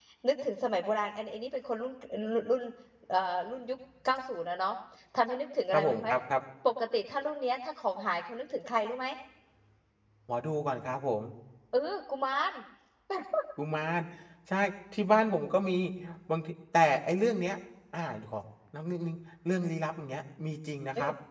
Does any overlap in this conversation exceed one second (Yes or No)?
No